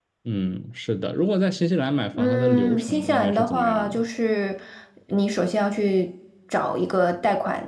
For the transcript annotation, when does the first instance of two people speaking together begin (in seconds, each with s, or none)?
2.1 s